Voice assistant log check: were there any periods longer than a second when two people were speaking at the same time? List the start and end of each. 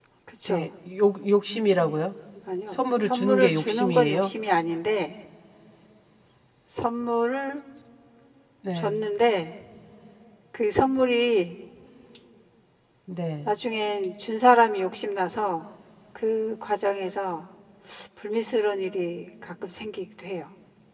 2.7-4.3

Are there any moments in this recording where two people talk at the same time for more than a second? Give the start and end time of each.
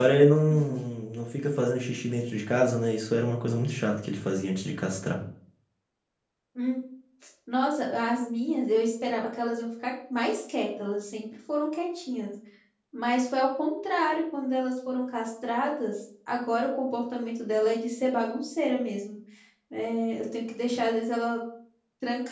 none

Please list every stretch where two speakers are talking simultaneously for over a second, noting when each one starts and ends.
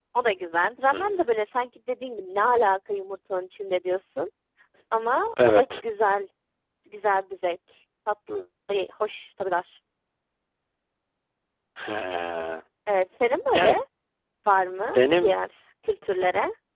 none

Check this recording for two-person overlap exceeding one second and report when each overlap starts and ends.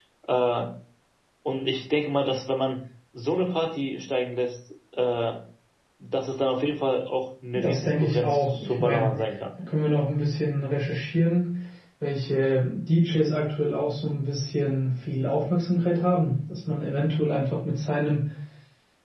7.5-9.2

